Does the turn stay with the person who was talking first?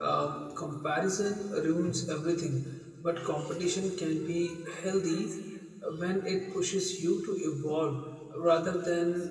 No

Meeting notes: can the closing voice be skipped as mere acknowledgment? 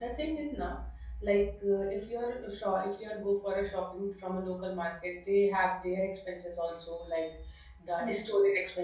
Yes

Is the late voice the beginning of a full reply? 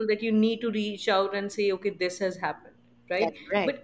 No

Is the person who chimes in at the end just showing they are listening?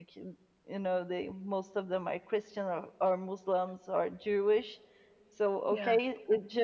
Yes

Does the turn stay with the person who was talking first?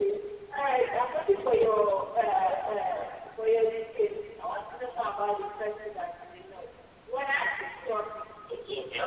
No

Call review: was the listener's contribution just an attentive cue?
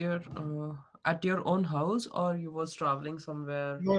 No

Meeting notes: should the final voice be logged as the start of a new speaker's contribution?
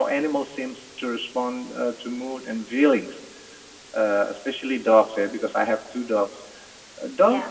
No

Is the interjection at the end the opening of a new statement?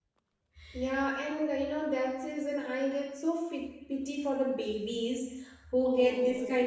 No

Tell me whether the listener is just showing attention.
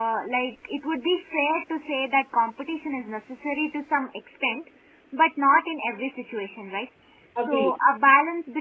Yes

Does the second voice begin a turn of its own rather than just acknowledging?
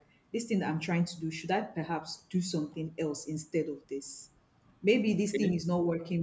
No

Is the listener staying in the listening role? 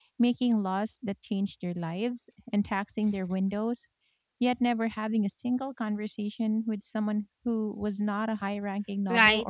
No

